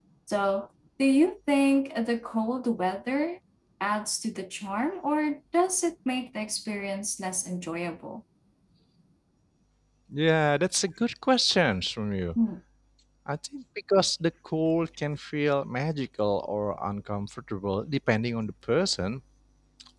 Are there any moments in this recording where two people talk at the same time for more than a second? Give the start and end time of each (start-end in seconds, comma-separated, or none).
none